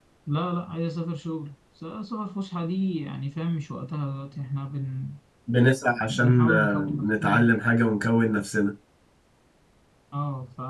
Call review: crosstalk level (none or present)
present